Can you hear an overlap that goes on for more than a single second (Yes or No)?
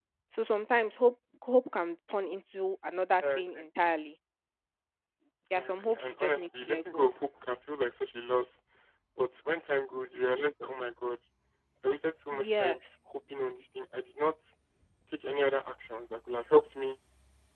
Yes